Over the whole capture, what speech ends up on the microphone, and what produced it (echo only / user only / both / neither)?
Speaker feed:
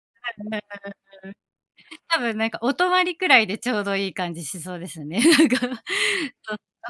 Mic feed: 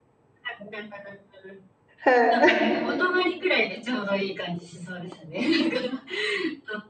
both